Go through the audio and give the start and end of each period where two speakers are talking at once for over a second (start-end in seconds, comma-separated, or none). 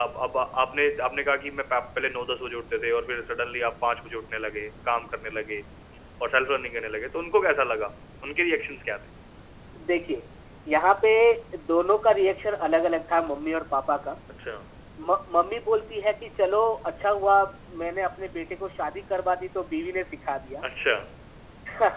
none